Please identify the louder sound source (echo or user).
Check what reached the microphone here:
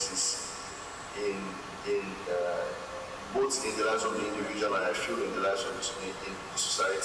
echo